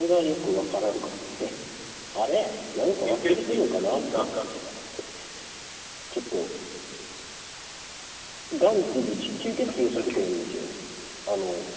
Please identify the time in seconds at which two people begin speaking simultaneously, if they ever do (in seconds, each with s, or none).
3.0 s